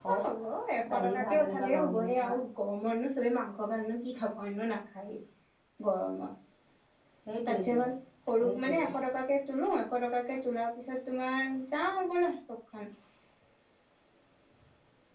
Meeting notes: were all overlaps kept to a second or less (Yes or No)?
No